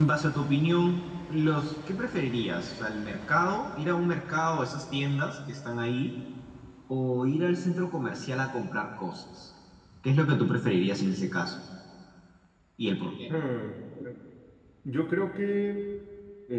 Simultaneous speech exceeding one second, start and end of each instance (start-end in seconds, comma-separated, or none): none